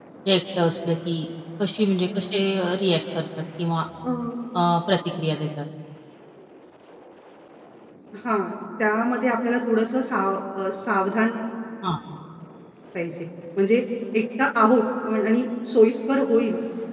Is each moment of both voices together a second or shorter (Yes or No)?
Yes